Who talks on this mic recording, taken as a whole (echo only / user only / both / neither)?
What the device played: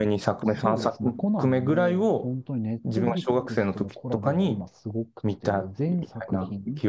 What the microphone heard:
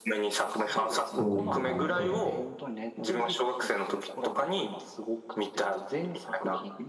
both